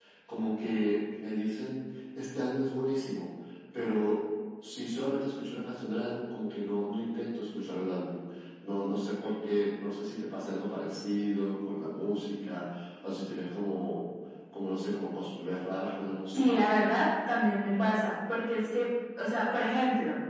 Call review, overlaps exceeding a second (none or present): none